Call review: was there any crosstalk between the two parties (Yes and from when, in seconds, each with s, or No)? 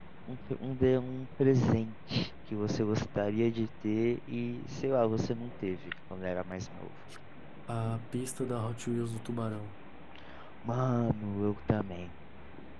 No